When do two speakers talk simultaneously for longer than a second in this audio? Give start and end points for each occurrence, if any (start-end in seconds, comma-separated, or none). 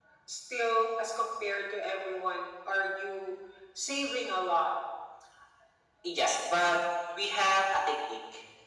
none